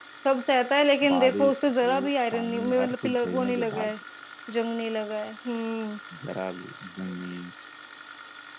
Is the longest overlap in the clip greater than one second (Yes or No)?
Yes